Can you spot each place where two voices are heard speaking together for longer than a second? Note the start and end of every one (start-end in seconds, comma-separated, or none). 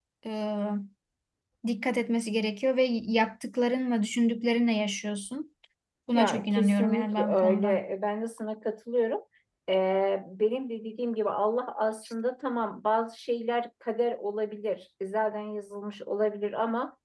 6.1-7.8